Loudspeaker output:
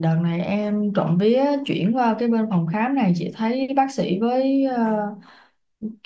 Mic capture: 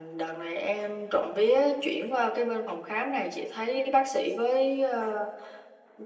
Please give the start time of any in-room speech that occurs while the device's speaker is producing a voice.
none

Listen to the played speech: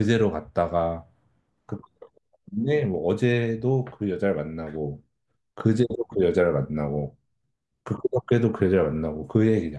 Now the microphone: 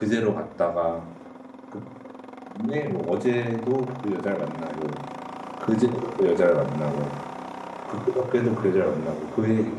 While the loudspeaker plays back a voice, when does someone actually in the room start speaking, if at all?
none

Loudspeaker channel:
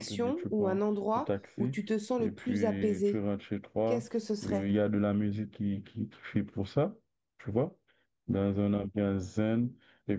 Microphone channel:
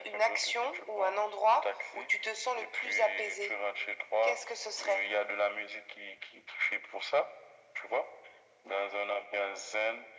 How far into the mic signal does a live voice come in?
none

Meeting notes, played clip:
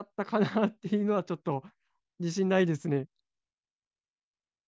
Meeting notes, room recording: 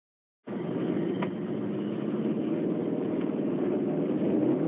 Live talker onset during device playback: none

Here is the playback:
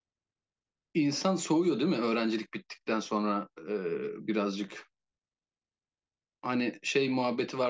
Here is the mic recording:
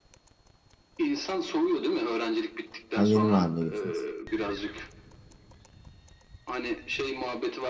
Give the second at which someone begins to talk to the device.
2.9 s

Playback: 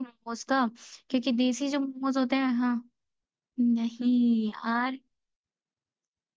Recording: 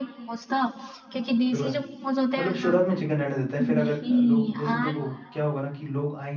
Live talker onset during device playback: 1.5 s

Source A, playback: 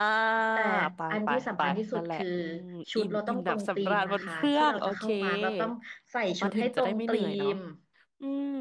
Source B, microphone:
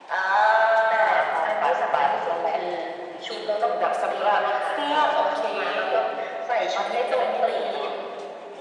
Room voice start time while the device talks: none

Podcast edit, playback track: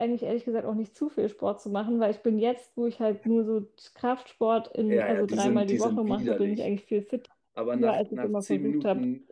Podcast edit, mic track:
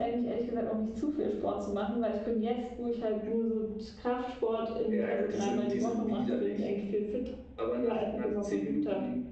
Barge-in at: none

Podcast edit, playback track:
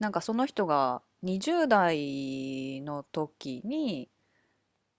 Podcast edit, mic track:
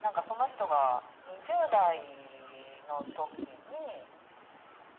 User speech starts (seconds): none

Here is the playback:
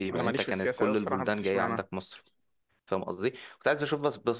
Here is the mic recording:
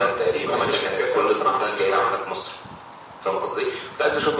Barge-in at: none

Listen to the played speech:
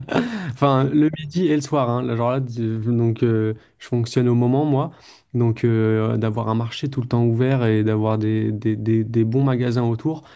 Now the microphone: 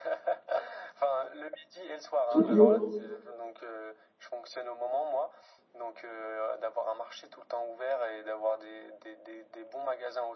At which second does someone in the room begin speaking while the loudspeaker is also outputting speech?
2.3 s

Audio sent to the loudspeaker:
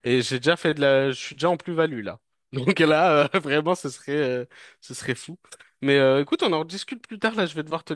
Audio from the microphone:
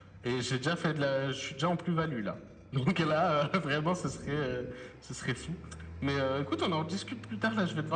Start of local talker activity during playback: none

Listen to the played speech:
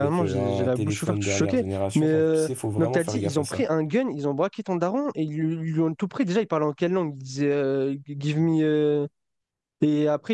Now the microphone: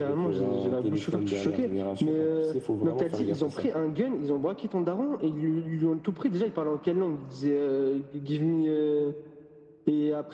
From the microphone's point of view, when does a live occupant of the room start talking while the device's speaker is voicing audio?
none

